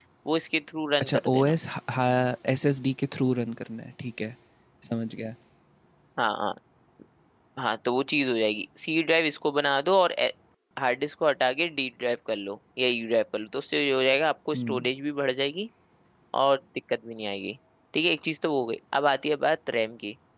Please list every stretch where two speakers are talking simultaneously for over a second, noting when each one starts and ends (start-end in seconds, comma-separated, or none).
none